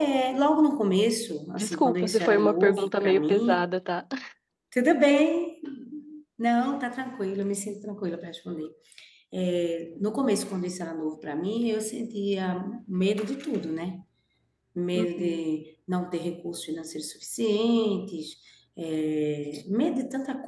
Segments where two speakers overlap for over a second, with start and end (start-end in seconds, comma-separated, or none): 1.6-3.6